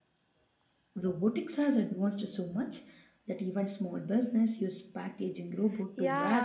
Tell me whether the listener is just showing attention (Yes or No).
No